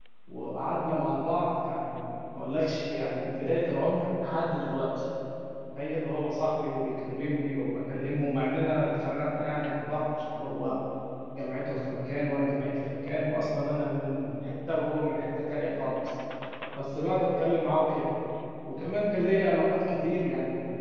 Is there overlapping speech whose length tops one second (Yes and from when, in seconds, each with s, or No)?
No